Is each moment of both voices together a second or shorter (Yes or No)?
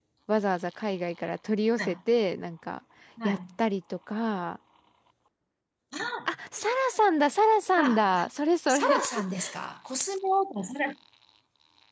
Yes